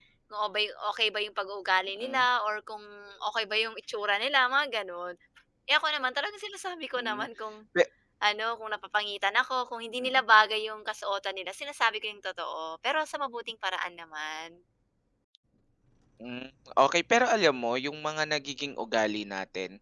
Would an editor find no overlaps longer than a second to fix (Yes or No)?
Yes